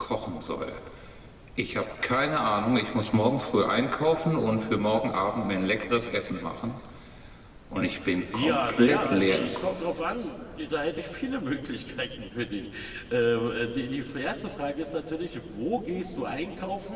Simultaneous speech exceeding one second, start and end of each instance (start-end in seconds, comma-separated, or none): 8.3-9.9